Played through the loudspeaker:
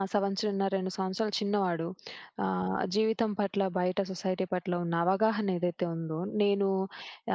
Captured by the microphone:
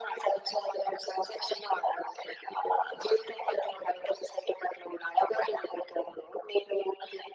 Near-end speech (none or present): none